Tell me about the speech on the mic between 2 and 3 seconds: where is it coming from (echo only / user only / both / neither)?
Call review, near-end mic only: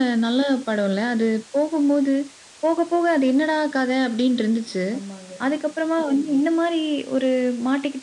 echo only